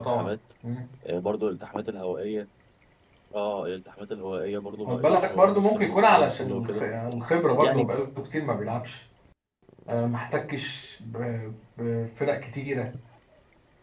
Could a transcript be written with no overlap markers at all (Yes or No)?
No